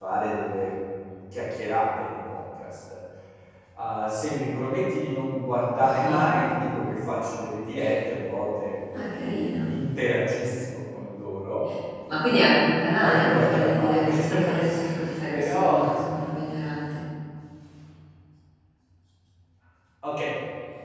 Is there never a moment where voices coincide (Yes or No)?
No